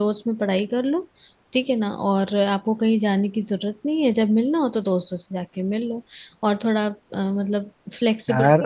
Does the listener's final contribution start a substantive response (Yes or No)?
No